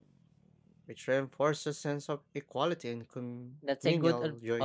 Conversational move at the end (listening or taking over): taking over